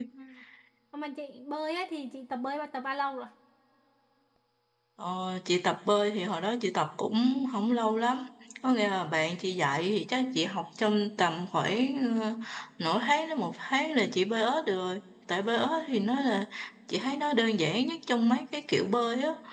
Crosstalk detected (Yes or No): No